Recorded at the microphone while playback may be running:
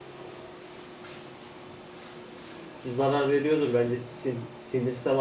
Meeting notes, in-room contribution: present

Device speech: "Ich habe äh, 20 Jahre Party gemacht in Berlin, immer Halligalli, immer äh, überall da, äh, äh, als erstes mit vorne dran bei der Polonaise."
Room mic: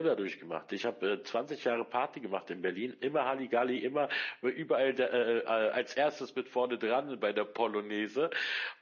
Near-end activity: none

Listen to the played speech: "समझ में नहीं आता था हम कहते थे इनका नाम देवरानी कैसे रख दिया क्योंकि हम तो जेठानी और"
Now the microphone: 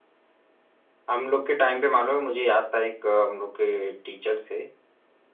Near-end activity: present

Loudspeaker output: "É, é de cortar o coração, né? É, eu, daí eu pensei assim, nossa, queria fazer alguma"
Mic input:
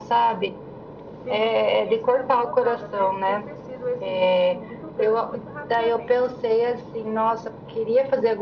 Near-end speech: present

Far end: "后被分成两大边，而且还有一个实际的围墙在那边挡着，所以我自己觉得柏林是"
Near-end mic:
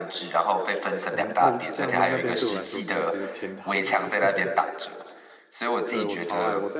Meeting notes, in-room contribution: present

